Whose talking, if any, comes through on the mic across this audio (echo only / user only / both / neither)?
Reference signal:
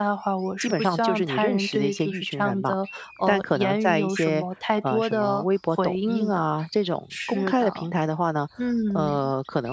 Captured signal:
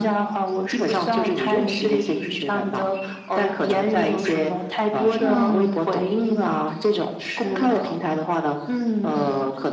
both